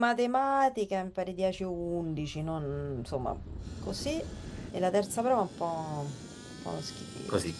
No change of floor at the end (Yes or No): No